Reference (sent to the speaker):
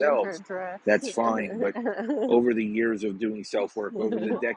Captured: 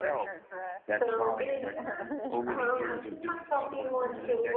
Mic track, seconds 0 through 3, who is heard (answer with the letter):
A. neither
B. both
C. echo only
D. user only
B